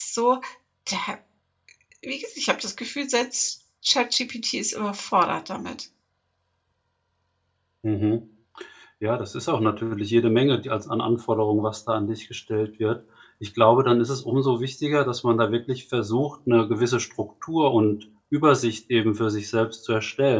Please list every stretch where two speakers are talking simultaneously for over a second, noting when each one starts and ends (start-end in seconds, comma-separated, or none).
none